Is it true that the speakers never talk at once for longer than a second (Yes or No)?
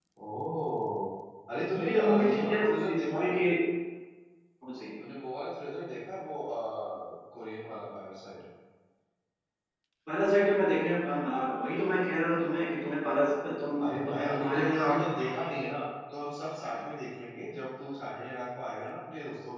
No